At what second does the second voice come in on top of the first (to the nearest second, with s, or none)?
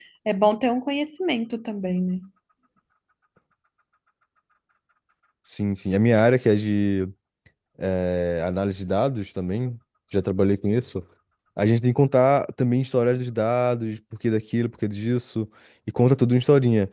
none